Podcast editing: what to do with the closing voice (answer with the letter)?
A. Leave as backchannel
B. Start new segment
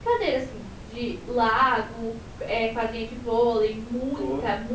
A